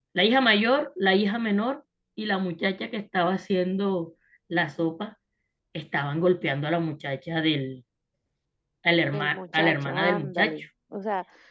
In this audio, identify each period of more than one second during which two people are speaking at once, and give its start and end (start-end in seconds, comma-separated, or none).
9.1-10.6